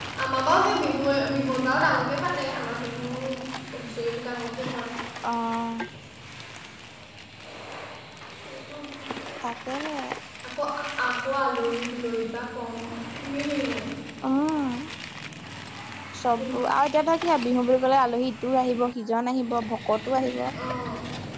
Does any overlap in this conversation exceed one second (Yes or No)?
No